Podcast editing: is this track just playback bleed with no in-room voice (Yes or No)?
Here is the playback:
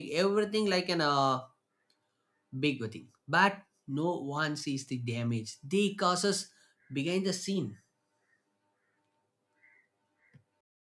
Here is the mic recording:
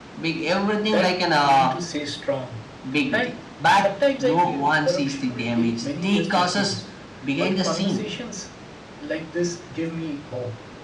No